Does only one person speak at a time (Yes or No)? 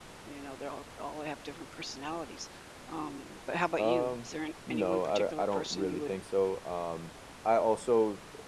No